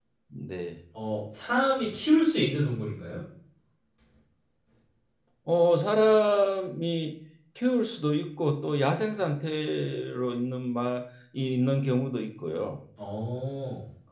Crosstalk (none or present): none